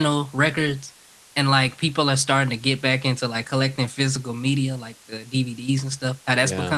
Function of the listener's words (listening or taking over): listening